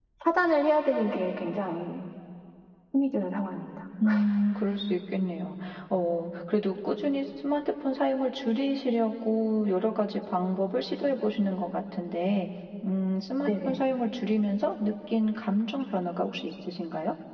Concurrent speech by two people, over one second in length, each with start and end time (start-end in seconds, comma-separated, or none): none